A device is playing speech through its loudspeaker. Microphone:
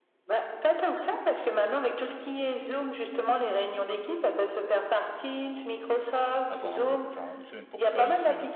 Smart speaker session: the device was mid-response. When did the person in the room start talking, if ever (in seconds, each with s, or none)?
6.5 s